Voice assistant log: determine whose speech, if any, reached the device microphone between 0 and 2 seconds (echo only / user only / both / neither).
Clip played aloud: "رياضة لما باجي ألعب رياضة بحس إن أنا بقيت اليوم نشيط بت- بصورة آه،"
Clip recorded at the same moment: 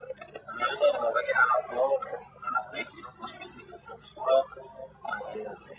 echo only